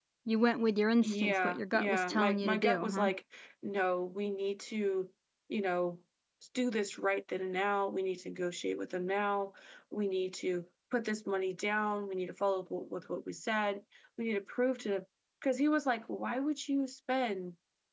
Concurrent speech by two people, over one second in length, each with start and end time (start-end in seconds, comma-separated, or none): 1.0-3.1